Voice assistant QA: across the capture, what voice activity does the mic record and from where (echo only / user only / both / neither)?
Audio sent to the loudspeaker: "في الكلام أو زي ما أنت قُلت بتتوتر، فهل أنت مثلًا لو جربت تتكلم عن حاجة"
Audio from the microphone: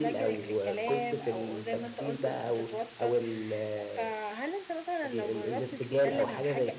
both